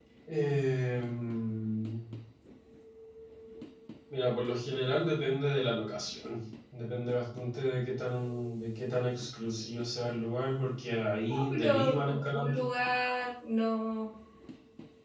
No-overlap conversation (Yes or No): No